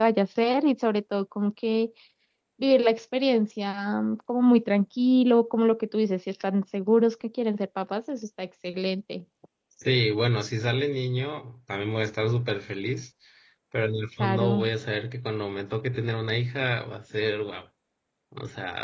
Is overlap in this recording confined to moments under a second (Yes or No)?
Yes